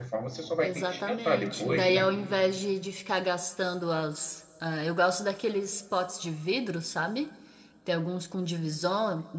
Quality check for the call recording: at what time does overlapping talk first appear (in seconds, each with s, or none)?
0.6 s